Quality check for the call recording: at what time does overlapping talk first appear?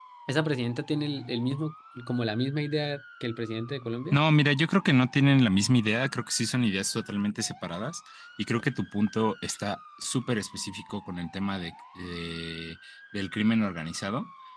none

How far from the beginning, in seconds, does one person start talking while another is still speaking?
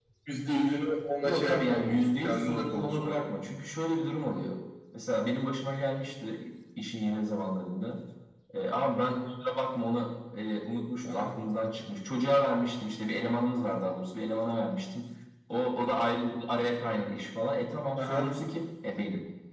1.2 s

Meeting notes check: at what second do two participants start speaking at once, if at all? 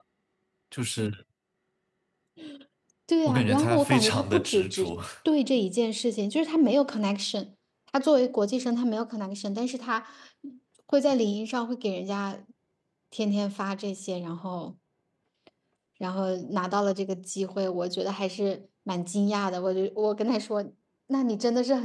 3.2 s

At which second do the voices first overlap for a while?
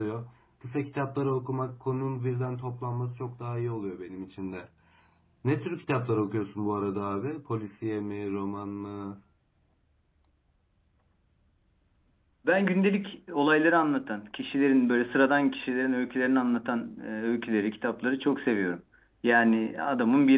none

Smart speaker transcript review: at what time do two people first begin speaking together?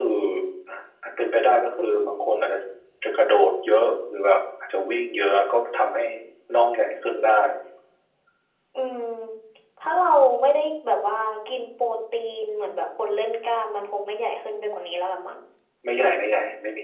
none

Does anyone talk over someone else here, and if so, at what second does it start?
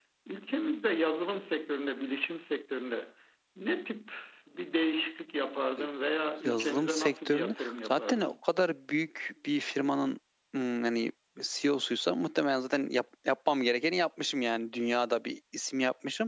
6.4 s

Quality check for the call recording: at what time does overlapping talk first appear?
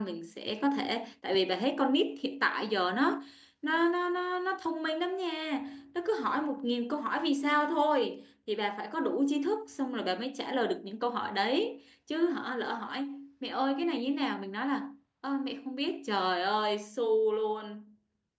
none

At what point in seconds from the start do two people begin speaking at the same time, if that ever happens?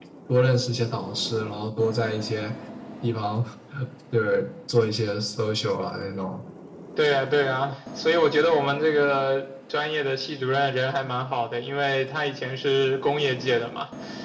none

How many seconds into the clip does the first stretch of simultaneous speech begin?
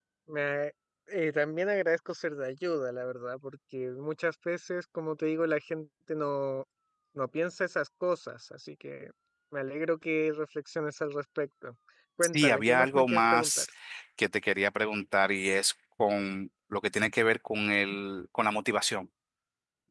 12.2 s

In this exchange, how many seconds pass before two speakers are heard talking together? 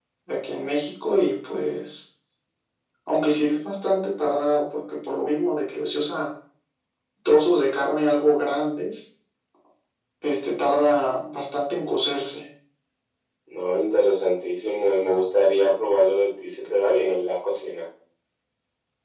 none

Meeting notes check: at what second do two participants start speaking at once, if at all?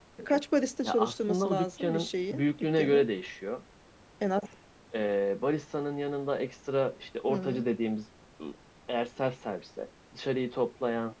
0.8 s

